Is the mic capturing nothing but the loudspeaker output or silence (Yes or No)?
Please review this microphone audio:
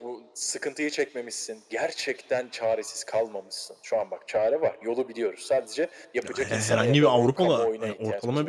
No